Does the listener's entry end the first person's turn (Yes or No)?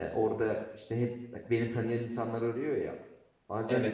No